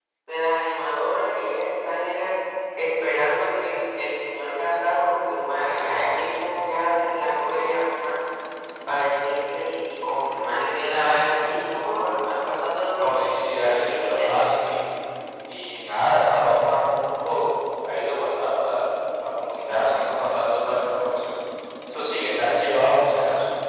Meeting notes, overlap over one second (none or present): present